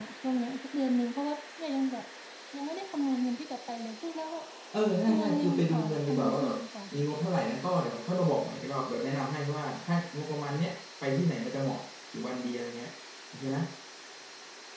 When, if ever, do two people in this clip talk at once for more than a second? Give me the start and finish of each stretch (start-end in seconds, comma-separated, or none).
5.1-6.6